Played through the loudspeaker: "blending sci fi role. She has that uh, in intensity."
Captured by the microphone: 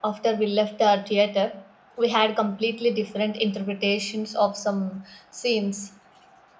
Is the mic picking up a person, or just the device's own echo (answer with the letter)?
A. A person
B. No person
A